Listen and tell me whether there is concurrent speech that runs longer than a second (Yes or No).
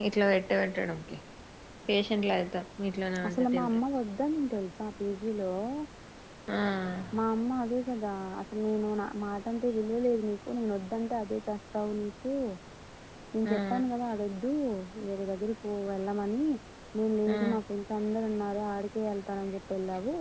No